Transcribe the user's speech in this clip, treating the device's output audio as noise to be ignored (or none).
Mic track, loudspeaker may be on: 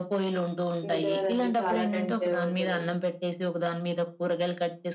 నిజమేనండి. చాలా టైం సేవవుతది.